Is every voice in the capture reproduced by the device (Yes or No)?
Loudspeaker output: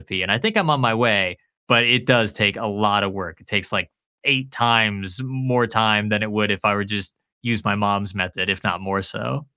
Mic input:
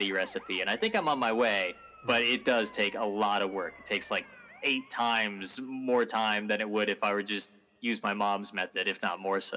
No